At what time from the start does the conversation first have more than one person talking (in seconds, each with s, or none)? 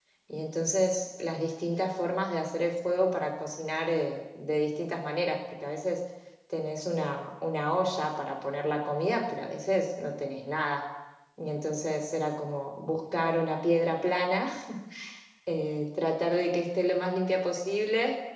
none